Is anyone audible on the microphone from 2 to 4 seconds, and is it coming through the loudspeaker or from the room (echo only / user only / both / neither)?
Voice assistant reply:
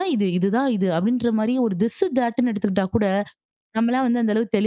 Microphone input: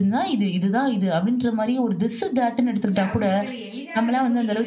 both